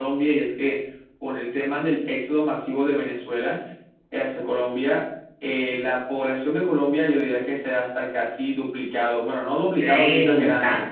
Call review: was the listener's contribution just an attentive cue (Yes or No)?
No